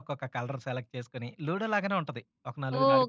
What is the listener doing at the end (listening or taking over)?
taking over